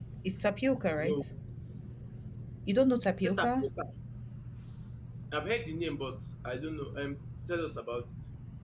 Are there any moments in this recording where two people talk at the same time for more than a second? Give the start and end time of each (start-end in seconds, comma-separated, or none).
none